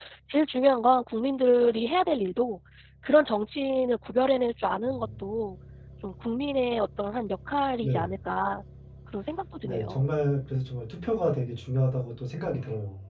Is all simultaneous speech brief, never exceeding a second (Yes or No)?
Yes